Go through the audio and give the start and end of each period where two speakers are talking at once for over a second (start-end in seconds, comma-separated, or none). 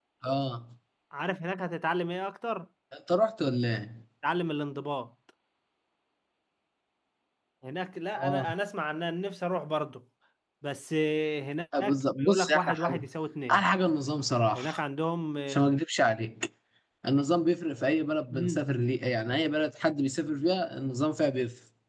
11.8-13.0